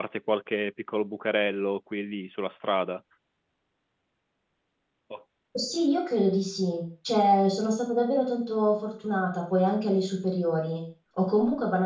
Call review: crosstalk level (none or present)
none